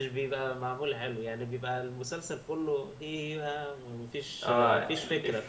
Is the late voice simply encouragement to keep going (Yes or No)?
No